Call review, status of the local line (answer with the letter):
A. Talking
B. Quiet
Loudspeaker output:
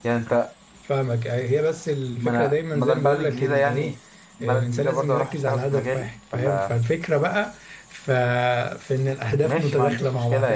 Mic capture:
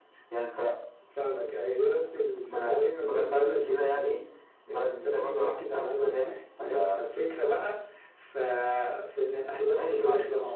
B